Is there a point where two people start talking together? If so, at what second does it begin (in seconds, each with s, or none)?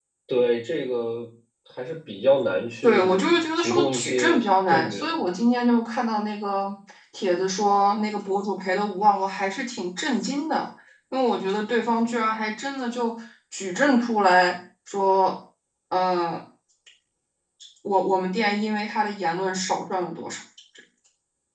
2.8 s